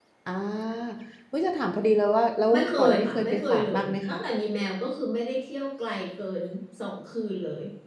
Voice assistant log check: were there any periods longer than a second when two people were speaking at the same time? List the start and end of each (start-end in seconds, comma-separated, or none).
2.5-4.2